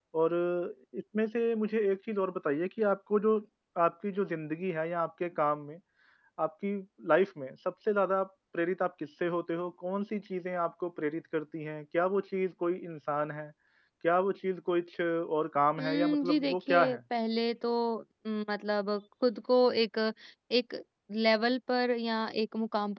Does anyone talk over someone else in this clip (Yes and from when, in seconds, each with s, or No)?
Yes, from 15.8 s